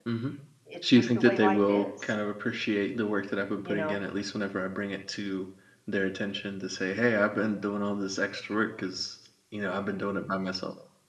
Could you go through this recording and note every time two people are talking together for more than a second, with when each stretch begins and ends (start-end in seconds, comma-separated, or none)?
0.8-2.1